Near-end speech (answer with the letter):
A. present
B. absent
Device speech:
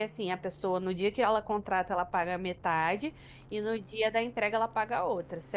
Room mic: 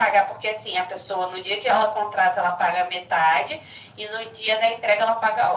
B